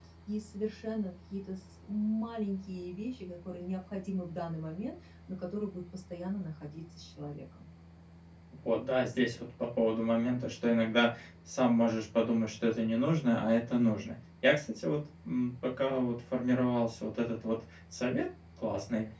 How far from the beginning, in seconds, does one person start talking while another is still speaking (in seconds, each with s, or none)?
none